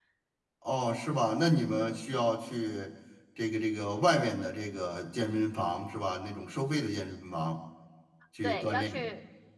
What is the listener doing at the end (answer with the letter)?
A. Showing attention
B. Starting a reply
B